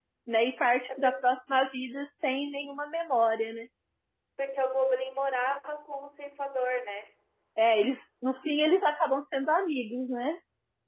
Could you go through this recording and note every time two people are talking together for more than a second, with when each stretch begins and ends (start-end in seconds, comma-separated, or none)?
none